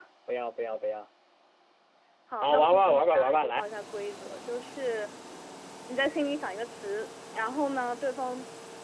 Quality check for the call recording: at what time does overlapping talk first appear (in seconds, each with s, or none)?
2.4 s